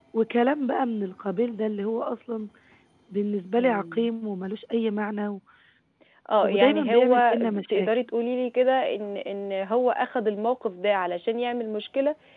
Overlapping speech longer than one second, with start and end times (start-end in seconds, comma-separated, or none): 6.4-7.9